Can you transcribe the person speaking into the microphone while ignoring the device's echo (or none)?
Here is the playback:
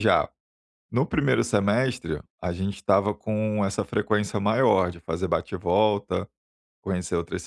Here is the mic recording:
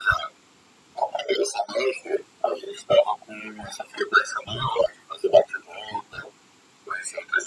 none